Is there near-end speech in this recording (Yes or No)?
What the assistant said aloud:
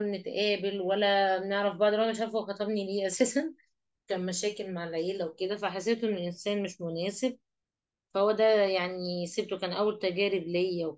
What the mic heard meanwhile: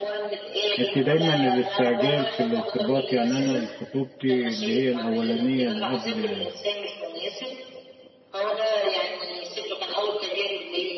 Yes